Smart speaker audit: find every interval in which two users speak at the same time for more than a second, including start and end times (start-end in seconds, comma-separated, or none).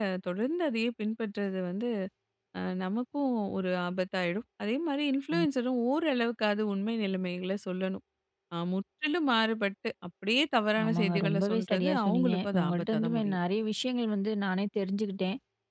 10.8-13.4